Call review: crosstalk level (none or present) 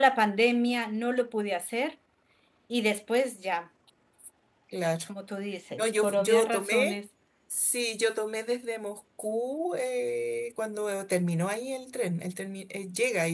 present